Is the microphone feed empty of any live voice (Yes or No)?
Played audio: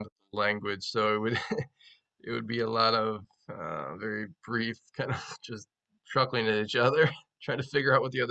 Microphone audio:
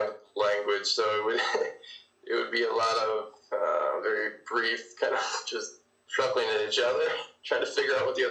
Yes